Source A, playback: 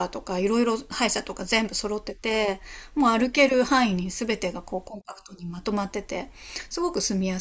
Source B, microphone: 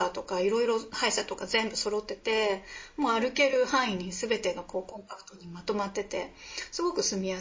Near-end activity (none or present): none